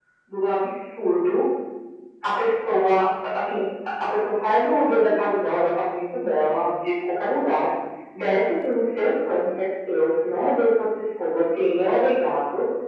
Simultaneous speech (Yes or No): No